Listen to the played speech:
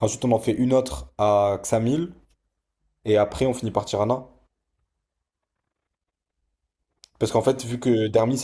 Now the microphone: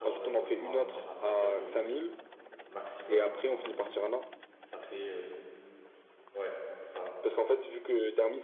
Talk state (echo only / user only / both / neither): both